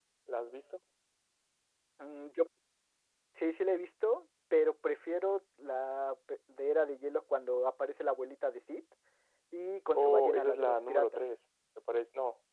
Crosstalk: present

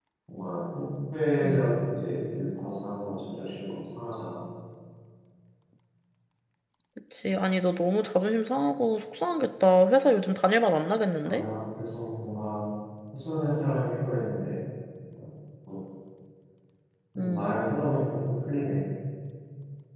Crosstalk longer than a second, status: none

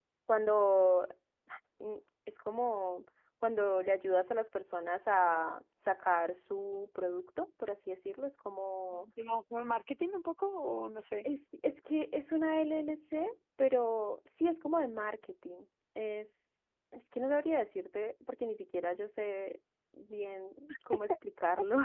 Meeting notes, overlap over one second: none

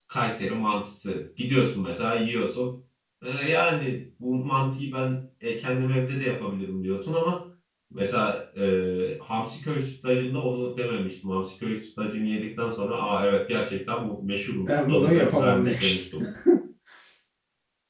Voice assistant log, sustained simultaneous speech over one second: present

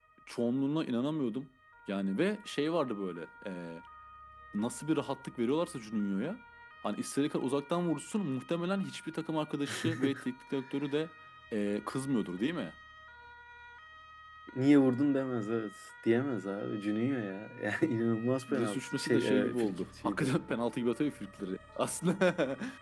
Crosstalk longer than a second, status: present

